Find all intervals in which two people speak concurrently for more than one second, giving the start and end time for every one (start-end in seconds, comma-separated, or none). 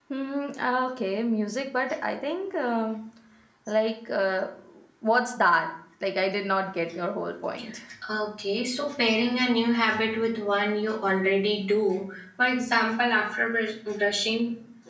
none